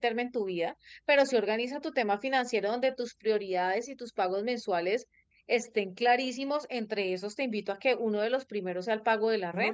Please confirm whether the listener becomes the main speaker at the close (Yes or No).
Yes